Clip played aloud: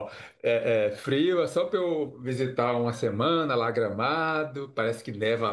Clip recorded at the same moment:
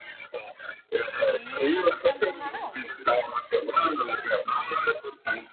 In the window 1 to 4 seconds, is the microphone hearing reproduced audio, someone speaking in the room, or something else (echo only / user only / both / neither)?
both